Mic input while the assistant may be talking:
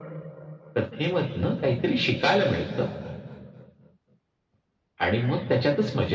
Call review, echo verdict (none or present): present